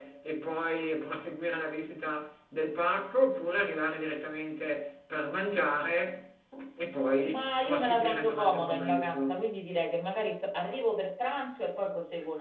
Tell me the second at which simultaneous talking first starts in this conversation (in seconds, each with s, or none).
7.2 s